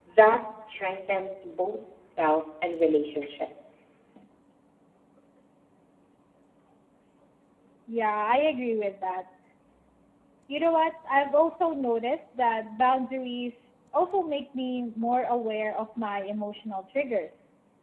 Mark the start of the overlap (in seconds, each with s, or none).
none